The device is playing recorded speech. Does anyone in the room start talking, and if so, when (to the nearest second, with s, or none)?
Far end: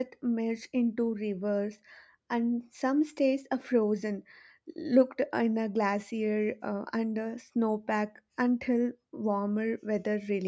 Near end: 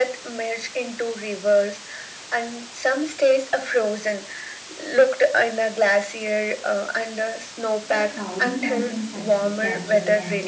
8 s